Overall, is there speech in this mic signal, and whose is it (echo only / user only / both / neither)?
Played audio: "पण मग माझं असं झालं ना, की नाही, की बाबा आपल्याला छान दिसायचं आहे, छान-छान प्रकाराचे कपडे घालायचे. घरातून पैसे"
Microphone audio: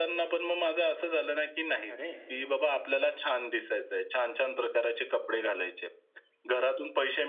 both